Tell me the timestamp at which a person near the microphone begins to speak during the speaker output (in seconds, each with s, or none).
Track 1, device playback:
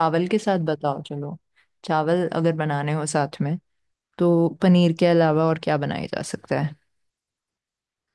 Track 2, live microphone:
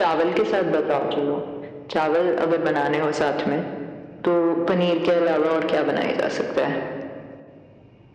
none